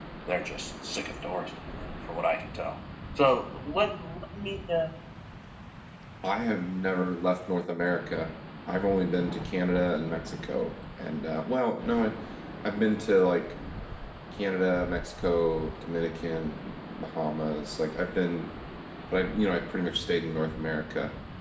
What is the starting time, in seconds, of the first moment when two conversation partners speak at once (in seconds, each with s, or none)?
none